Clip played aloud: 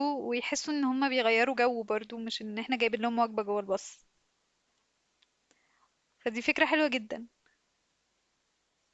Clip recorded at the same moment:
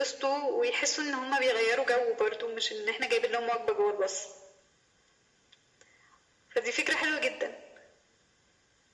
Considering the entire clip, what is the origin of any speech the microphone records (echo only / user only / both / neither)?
echo only